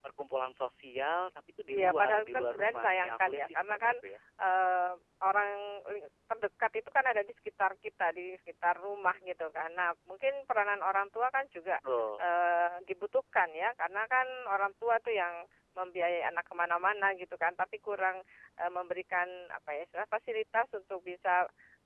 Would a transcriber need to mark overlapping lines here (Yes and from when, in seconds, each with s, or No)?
Yes, from 1.7 s